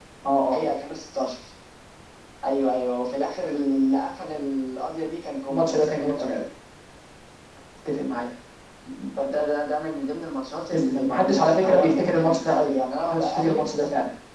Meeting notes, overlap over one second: present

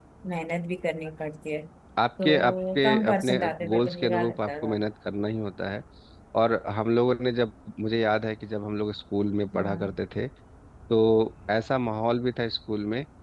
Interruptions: present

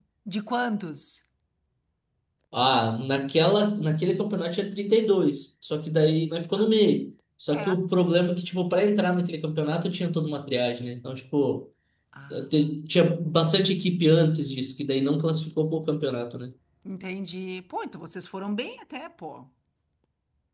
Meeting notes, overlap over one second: none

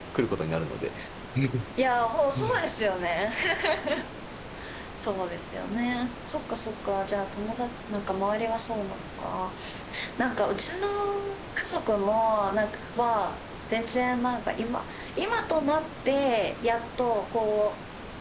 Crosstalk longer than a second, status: none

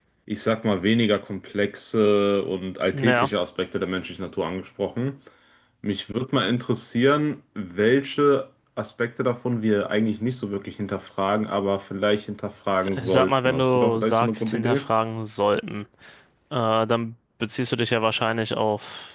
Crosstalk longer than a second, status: present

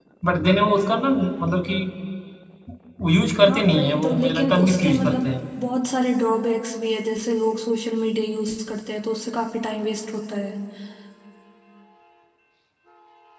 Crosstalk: present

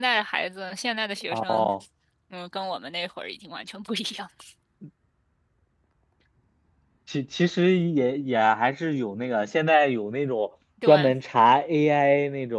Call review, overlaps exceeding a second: none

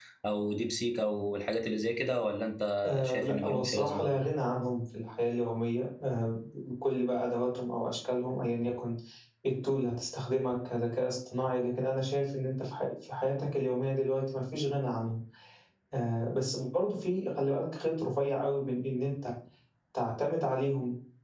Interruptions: present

